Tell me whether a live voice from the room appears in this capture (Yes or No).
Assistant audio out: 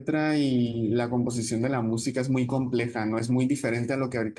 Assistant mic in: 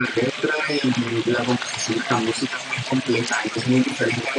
No